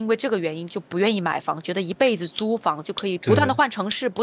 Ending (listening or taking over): listening